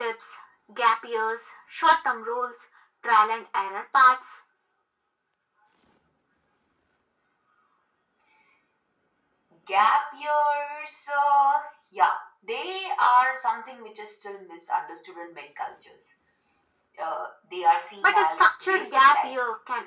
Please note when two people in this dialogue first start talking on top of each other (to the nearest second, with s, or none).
18 s